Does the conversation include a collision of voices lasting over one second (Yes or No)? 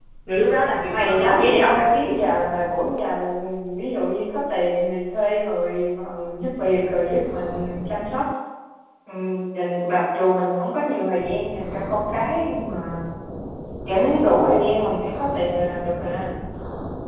Yes